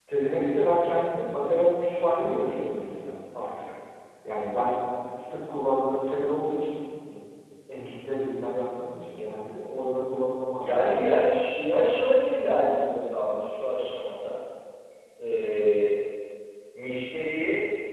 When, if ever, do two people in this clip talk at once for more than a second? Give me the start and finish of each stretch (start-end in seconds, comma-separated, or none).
none